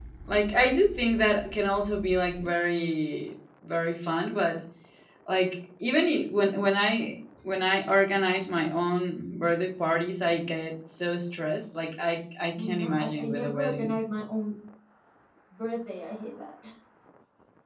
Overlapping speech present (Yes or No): Yes